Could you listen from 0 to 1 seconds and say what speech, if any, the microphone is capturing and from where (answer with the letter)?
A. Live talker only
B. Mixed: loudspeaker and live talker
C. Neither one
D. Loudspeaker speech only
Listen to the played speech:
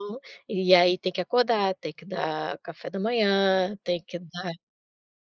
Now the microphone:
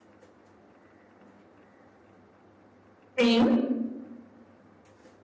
C